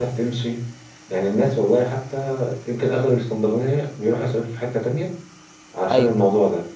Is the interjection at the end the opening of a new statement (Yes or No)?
No